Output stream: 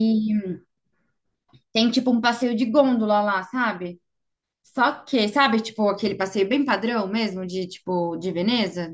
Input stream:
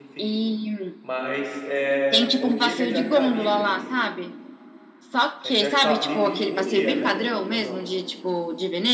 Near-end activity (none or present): present